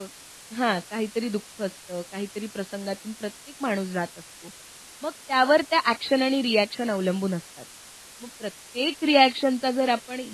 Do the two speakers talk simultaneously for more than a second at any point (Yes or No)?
No